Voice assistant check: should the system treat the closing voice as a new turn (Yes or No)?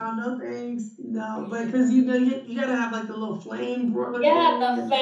Yes